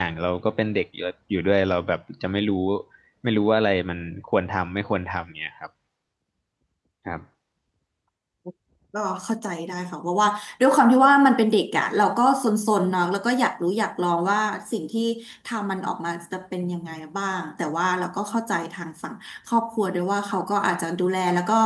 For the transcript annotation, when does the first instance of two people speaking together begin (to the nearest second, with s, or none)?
none